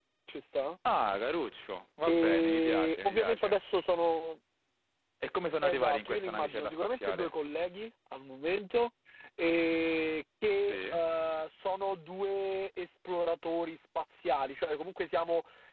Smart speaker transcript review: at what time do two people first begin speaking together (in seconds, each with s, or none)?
2.1 s